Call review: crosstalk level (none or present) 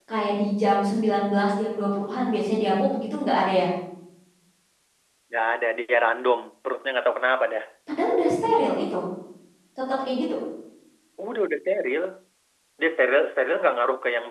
none